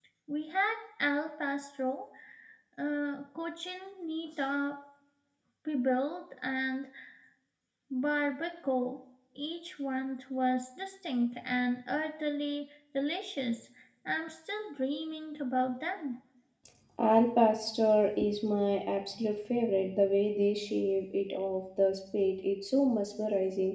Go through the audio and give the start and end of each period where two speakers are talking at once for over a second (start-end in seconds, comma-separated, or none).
none